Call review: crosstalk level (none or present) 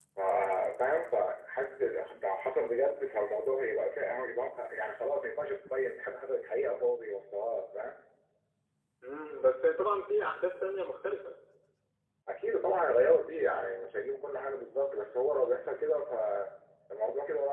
none